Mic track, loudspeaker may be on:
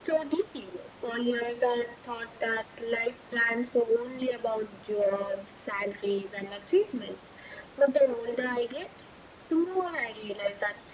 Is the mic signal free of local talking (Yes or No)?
Yes